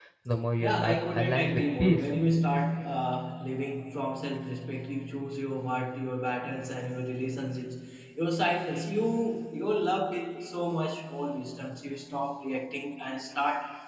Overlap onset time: 1 s

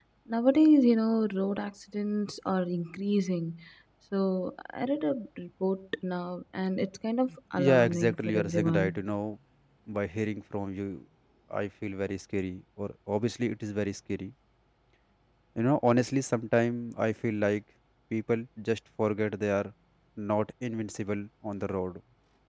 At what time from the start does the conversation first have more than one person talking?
8 s

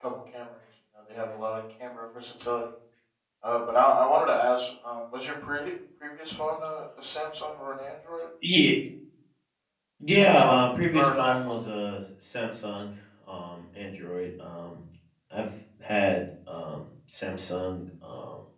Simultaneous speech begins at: 10 s

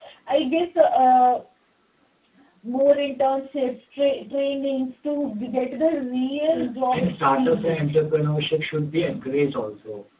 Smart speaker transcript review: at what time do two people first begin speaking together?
6 s

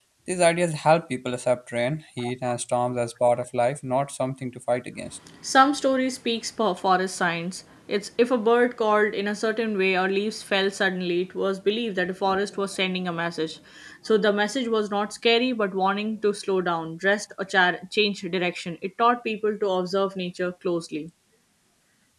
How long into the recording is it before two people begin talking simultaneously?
none

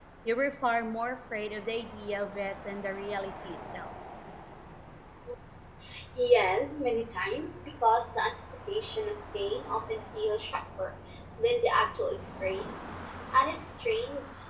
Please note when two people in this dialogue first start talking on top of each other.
none

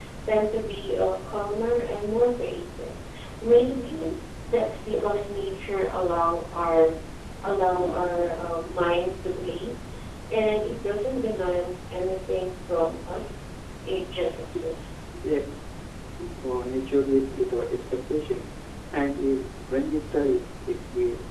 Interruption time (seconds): none

